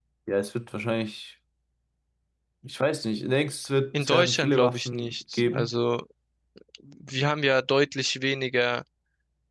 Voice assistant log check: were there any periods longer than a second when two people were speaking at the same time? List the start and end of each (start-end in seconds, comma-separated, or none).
4.0-5.7